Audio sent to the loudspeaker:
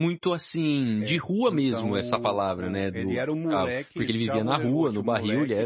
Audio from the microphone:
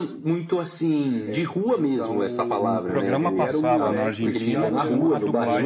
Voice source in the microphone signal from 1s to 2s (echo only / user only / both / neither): echo only